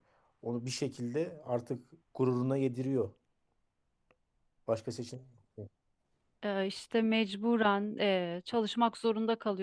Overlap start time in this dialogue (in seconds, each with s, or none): none